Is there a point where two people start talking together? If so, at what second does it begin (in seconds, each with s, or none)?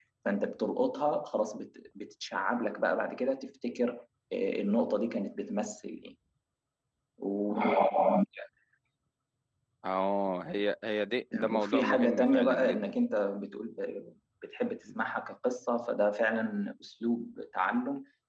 11.3 s